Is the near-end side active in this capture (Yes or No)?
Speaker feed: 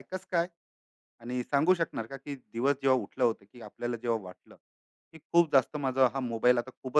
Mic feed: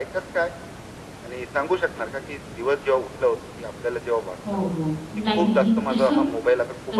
Yes